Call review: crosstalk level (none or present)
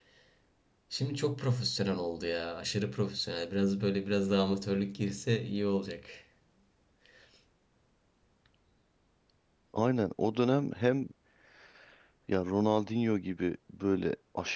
none